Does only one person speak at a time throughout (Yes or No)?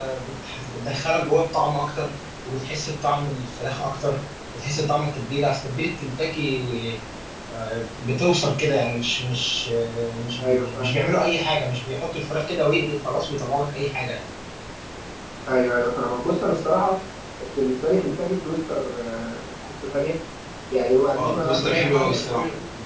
No